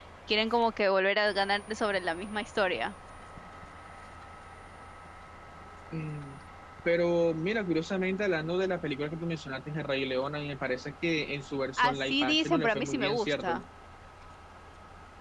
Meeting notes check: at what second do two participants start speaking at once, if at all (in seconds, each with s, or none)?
11.8 s